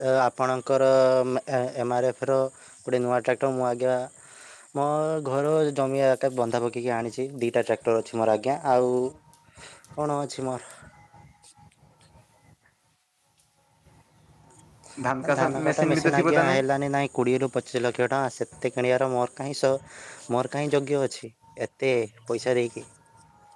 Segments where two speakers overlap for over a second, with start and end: 15.2-16.6

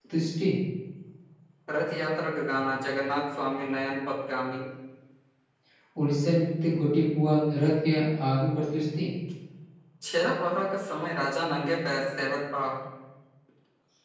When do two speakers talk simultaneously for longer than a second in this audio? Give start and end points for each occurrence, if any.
none

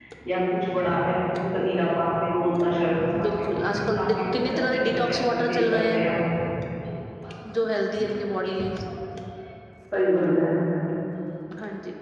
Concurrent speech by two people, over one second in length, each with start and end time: 3.2-6.0

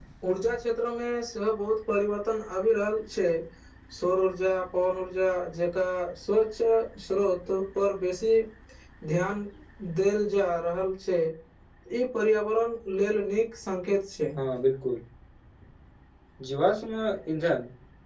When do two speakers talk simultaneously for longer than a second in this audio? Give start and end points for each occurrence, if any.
none

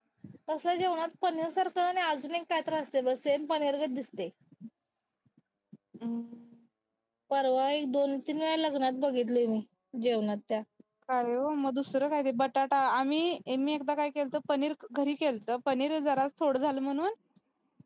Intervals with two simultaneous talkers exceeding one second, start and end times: none

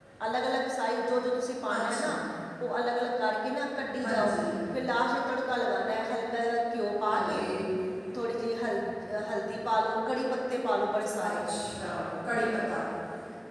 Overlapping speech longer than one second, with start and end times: none

